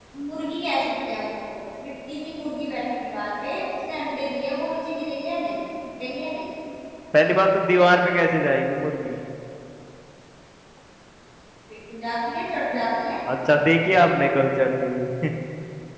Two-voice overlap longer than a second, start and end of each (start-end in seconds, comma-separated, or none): none